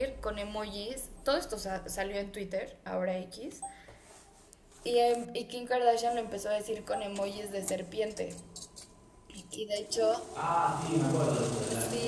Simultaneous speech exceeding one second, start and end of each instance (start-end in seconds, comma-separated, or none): none